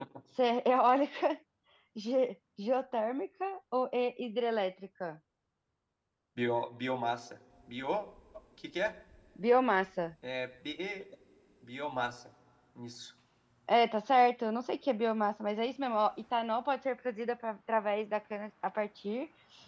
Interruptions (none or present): none